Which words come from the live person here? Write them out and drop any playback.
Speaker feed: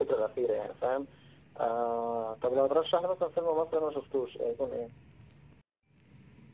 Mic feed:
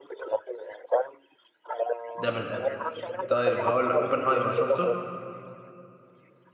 ده من الآخر طيب هقول لك اوبنهايمر شفته؟

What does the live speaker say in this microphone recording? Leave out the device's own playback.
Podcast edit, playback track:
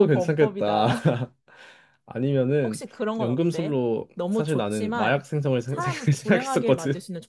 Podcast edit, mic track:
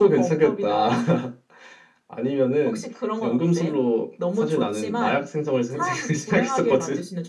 none

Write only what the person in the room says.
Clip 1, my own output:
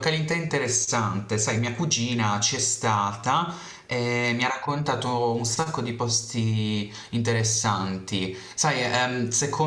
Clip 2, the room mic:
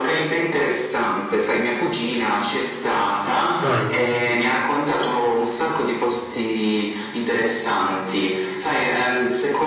bello, sì, sì.

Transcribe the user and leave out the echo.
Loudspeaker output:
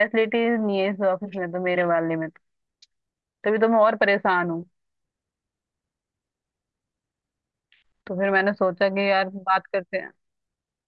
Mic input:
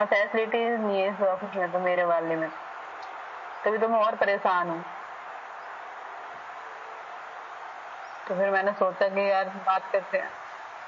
none

